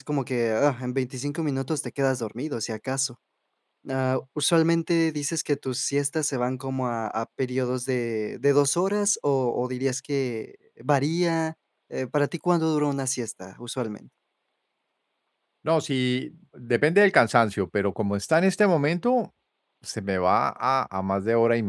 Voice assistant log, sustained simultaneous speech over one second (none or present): none